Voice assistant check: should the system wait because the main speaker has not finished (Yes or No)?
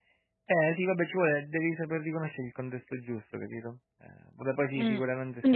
No